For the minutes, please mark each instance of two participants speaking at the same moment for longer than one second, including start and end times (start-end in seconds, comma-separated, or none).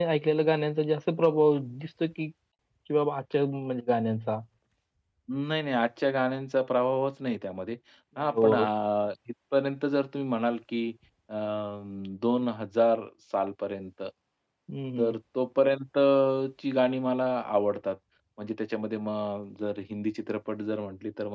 none